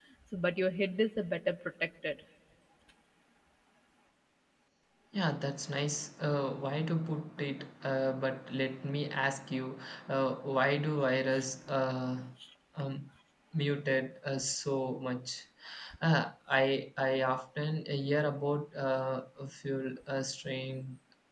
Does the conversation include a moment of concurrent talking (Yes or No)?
No